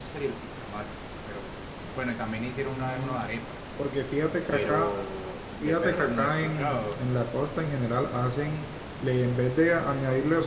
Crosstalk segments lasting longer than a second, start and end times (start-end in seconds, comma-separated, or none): 5.6-7.0